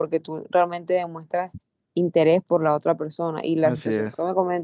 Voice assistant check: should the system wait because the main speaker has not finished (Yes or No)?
Yes